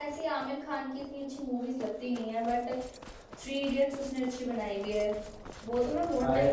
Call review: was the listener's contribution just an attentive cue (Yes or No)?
No